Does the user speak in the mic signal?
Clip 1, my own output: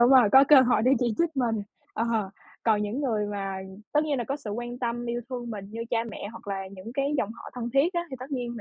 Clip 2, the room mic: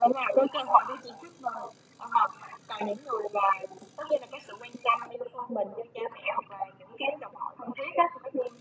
No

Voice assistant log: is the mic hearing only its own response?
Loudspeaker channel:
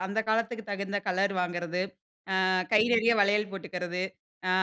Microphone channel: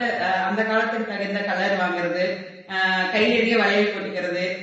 Yes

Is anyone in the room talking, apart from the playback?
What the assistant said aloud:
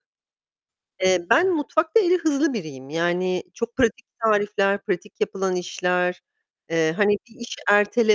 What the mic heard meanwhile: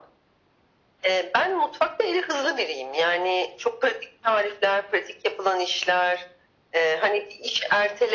No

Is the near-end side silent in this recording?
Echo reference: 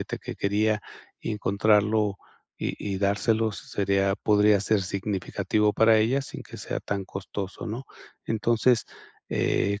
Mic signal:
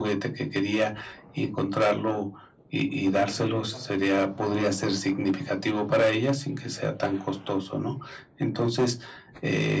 No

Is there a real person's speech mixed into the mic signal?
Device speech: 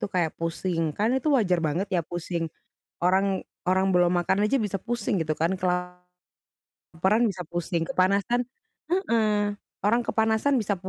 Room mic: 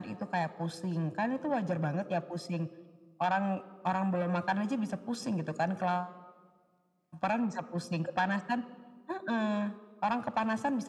No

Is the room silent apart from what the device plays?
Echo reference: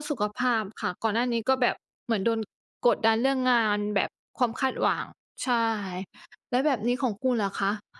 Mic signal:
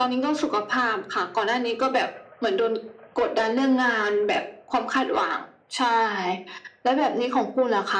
Yes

